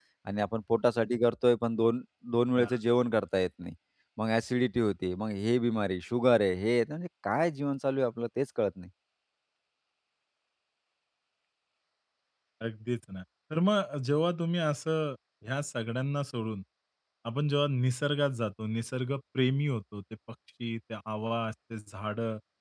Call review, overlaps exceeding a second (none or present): none